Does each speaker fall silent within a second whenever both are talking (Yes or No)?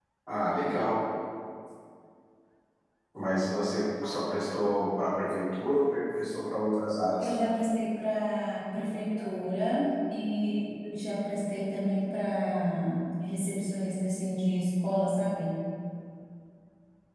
Yes